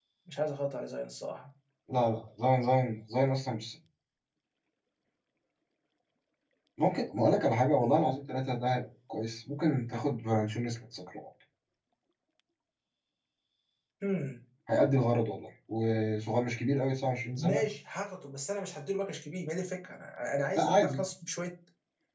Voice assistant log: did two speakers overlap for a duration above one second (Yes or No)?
No